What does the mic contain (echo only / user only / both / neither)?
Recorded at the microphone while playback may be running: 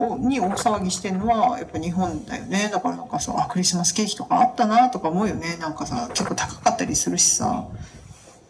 echo only